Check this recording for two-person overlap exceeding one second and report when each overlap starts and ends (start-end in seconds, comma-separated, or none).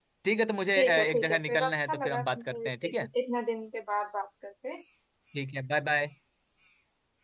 0.8-2.9